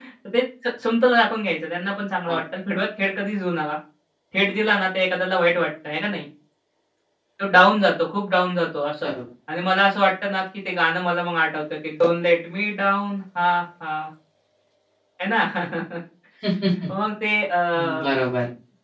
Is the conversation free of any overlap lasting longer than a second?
Yes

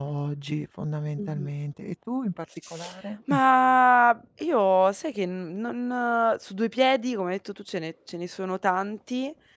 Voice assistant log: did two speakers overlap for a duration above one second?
No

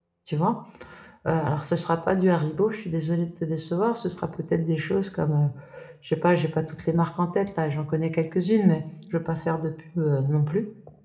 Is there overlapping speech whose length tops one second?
No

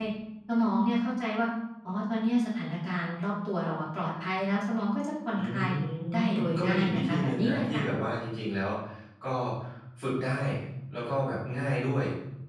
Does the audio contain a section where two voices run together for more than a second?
Yes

